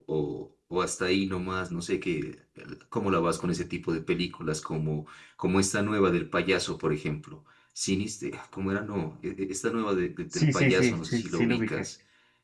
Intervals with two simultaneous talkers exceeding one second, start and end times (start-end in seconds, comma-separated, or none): 10.3-11.8